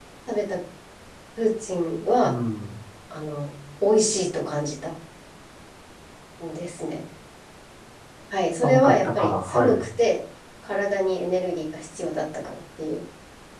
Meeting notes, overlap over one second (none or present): present